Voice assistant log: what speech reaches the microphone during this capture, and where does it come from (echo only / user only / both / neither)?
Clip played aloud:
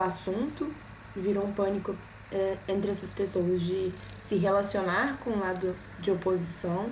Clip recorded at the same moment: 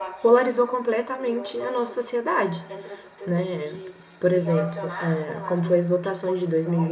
both